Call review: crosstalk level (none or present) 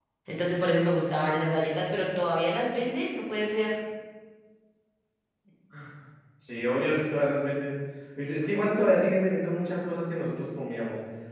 none